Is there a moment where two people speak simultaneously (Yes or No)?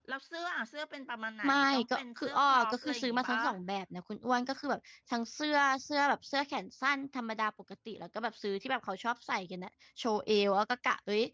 Yes